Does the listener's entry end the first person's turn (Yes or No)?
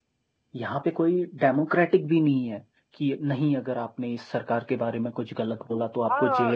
Yes